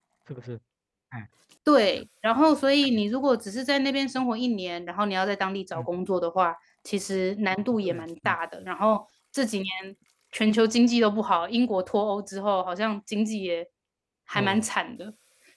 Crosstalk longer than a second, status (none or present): none